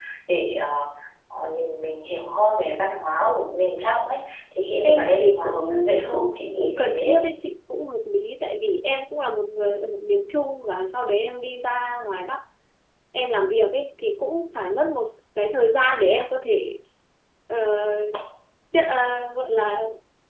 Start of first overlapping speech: 4.8 s

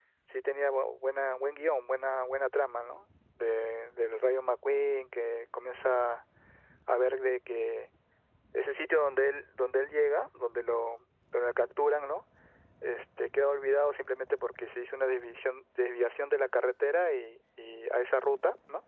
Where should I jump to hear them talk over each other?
none

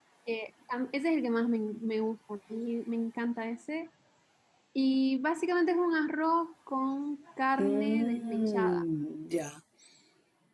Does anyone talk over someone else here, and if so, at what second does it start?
7.6 s

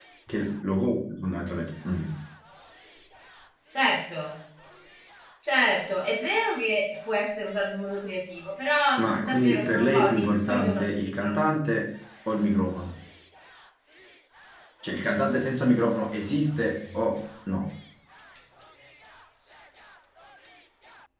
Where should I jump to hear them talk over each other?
9.2 s

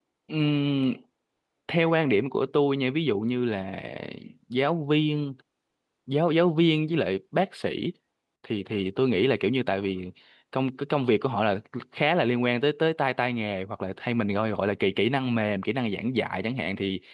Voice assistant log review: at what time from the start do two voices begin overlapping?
none

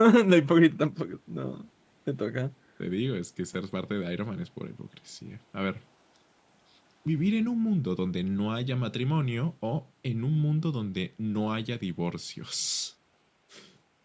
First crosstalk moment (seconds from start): none

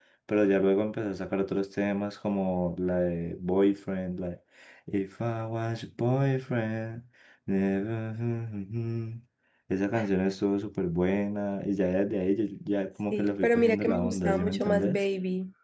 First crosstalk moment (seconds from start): 13.1 s

